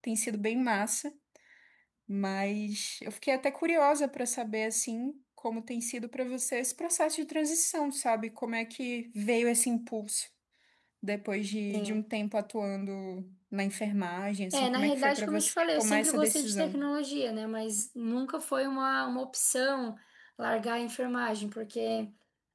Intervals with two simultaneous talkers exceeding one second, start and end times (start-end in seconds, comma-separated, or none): 14.5-16.8